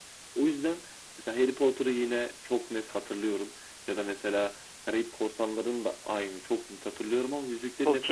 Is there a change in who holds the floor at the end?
Yes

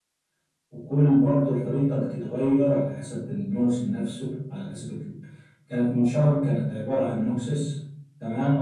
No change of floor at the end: No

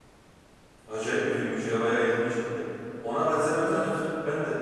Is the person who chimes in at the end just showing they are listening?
Yes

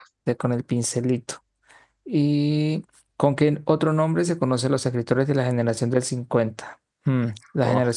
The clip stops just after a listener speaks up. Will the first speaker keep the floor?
Yes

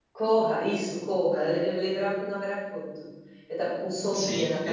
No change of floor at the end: No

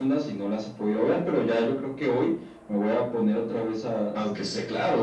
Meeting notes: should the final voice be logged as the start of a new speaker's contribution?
Yes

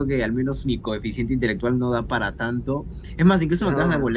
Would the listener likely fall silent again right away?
Yes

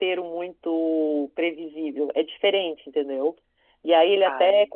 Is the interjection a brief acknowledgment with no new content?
Yes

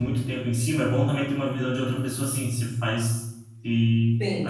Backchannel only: No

